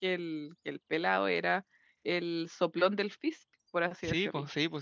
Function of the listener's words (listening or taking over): taking over